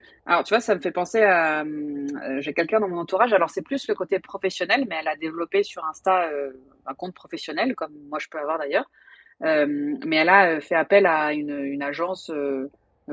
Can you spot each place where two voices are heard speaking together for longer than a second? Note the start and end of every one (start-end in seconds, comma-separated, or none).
none